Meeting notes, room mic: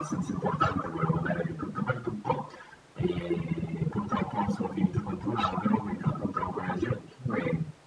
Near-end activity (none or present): none